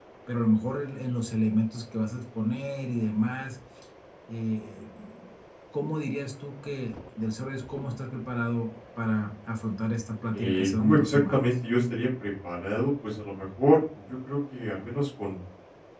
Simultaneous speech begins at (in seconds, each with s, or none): 10.3 s